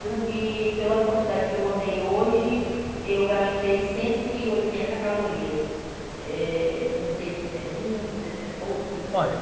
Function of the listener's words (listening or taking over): taking over